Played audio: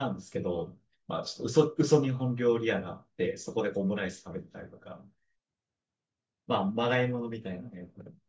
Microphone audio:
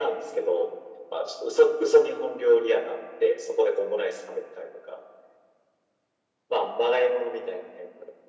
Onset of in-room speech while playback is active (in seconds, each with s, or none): none